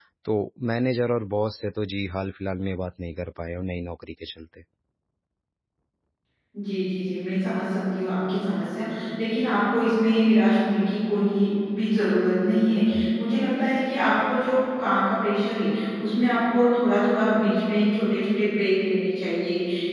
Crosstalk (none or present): none